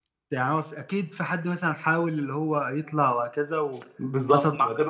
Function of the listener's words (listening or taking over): taking over